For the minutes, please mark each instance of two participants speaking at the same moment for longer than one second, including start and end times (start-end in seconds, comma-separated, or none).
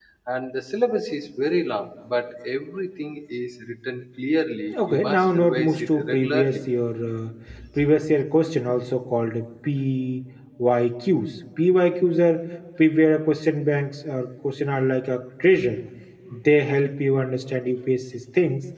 4.9-6.6